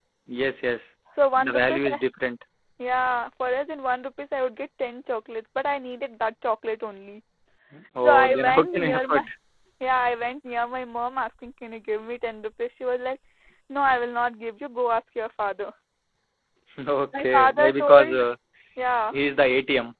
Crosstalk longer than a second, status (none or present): present